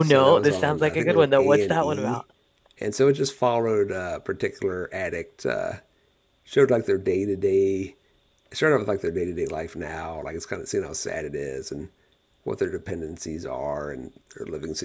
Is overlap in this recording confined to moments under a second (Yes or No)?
No